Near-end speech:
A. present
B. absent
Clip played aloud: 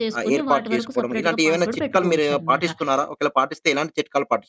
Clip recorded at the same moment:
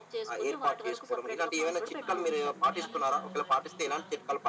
A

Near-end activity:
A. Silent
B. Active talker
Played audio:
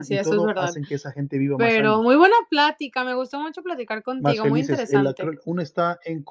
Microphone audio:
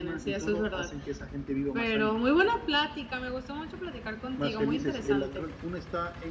A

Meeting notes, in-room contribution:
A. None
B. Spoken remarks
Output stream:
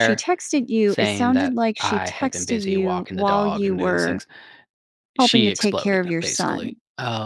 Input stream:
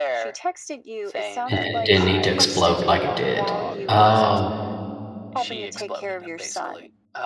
B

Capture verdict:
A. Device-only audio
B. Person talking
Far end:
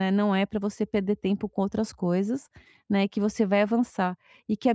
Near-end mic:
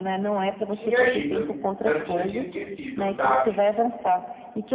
B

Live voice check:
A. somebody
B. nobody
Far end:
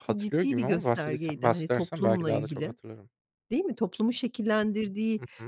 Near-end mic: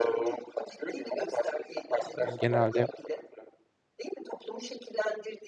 A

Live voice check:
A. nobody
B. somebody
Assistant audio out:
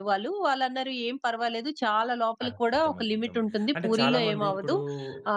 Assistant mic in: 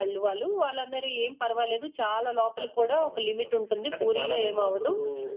A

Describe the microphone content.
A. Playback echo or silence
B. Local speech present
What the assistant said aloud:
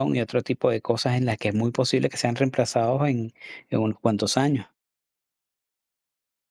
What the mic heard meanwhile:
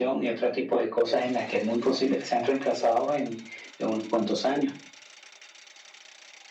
A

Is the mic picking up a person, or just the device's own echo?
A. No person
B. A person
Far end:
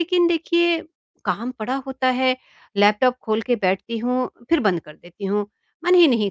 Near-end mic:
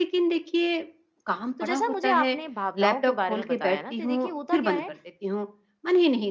B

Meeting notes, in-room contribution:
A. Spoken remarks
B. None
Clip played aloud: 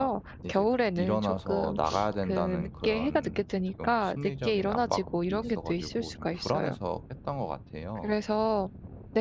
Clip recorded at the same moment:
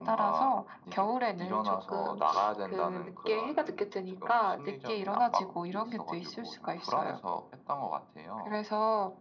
B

